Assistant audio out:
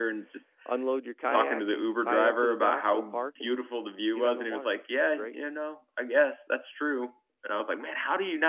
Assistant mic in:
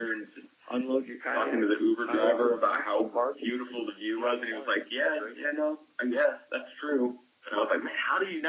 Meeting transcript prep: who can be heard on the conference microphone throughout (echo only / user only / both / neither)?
echo only